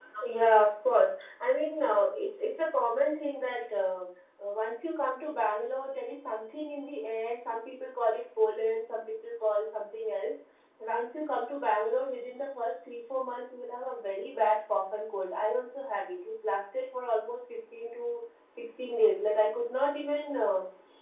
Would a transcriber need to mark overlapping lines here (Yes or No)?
No